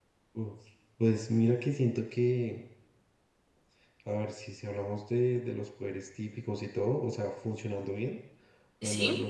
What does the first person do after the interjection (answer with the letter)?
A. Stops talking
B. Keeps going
B